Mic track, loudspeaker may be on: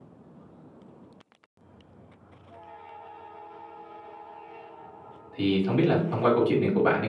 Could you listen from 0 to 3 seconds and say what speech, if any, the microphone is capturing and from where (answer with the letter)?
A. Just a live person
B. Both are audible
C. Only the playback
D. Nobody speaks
D